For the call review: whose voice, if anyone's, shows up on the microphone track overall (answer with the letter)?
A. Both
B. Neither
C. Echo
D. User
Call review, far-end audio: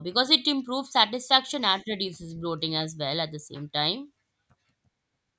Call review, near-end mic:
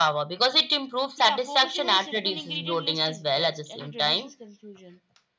A